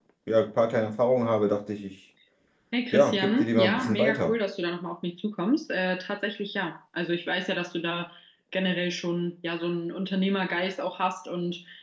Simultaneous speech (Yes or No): Yes